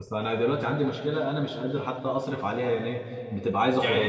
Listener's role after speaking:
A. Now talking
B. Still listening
B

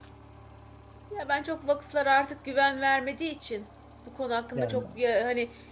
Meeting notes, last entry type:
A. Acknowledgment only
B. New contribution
A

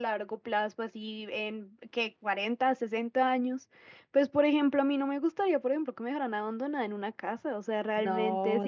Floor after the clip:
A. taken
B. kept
B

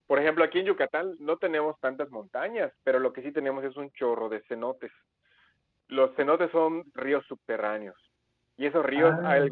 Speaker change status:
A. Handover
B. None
B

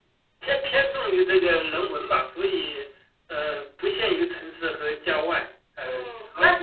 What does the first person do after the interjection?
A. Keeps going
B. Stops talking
B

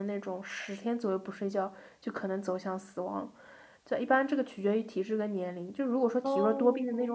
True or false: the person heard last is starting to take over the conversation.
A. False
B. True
A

